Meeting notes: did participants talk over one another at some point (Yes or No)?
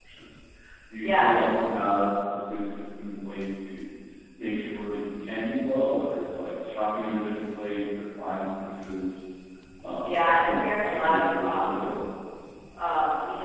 Yes